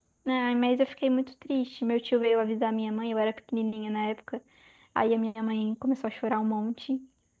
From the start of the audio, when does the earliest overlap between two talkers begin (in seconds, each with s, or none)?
none